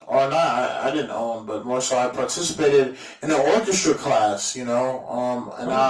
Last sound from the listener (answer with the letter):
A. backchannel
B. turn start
A